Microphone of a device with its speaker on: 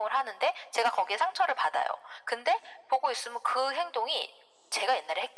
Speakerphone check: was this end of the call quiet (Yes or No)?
Yes